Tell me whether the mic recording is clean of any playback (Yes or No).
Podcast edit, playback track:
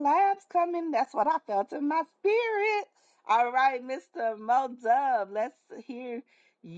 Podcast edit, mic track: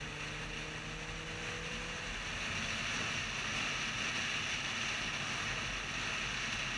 Yes